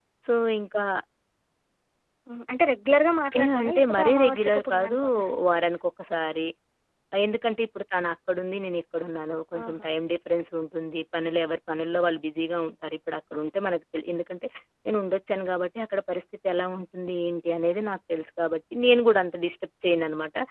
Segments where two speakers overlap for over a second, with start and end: 3.4-5.0

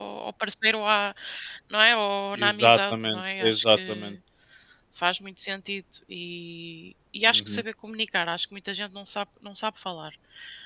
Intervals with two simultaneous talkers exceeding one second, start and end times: 2.3-4.2

